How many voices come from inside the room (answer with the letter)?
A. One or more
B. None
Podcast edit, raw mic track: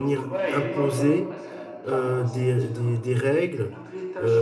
A